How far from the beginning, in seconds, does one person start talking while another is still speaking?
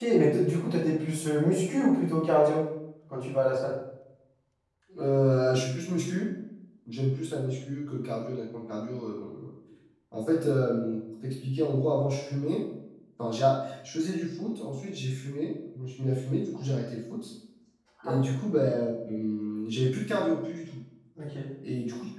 none

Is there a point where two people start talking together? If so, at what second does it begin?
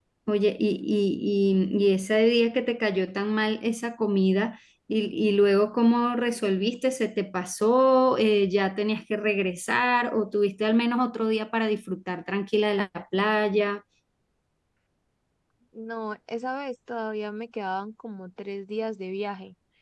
none

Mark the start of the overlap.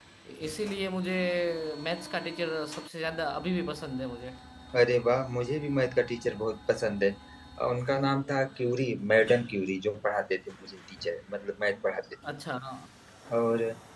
none

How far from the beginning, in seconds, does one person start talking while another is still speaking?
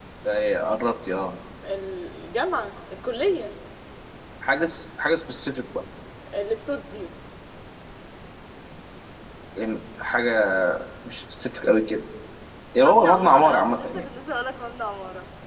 13 s

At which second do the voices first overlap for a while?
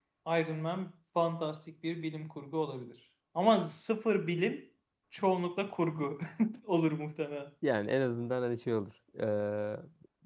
none

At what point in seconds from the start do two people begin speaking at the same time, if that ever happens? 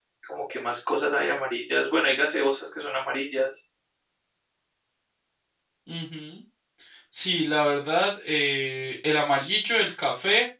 none

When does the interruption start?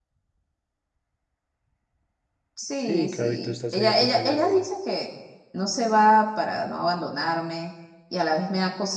3 s

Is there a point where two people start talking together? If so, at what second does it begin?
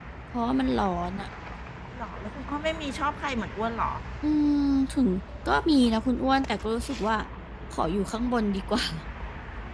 none

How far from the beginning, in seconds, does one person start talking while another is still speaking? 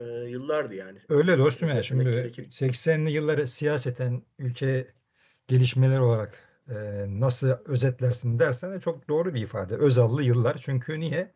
1 s

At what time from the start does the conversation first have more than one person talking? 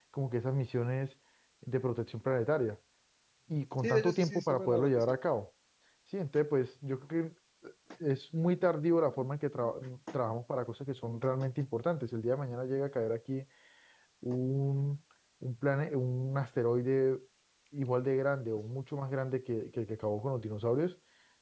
4 s

